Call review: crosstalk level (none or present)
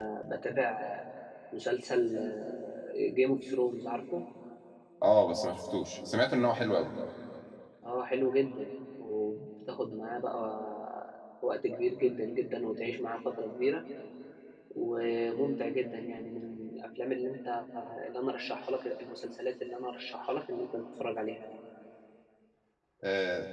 none